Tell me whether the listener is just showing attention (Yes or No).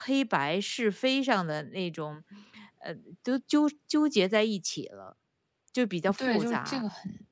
No